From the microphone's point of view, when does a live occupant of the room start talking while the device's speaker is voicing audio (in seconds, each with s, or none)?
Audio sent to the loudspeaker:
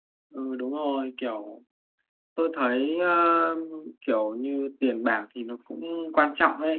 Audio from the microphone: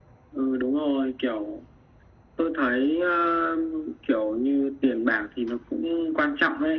none